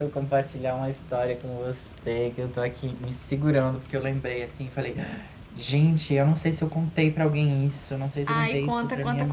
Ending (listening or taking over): taking over